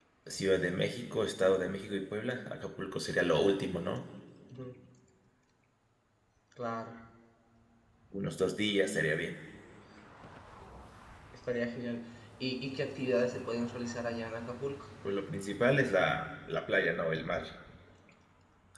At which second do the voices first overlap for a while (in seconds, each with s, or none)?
none